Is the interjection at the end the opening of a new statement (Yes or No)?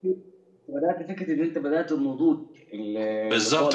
Yes